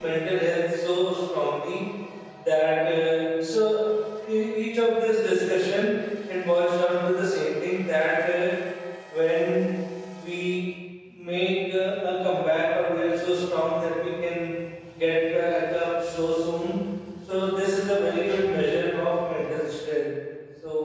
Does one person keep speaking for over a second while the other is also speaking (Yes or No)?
No